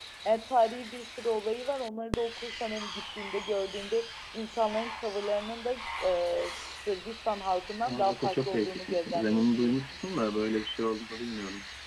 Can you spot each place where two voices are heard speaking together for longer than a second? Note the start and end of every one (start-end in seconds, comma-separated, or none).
7.8-9.9